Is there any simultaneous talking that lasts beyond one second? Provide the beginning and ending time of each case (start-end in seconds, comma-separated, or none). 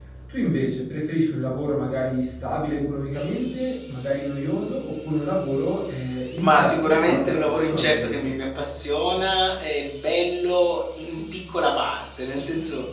6.4-8.3